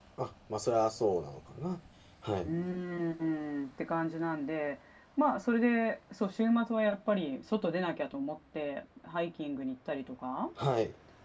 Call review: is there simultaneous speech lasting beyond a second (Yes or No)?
No